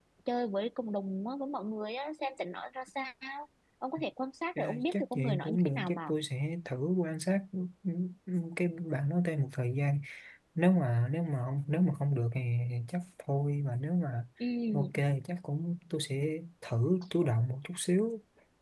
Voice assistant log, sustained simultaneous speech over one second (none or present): present